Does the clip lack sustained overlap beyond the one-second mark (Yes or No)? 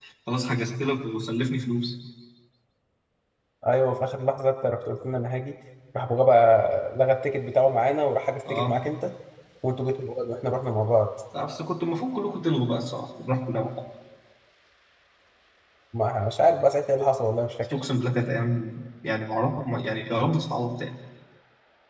Yes